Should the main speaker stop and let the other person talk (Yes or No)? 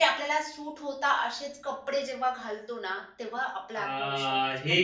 Yes